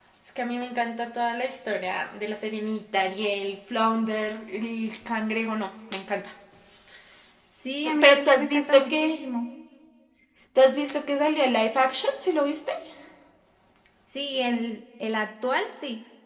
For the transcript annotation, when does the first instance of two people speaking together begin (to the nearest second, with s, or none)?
8 s